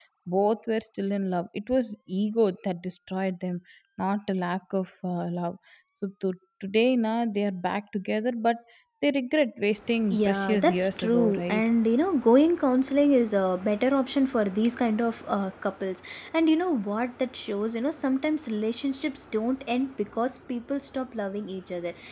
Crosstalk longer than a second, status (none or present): present